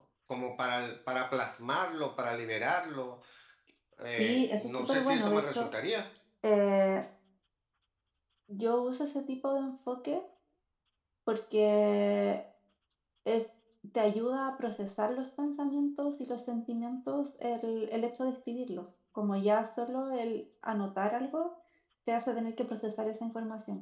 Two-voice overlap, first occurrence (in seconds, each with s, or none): 4.2 s